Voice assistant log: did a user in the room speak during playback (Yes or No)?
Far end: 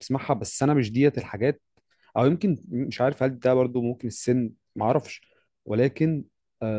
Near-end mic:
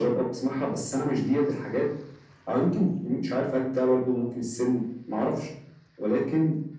No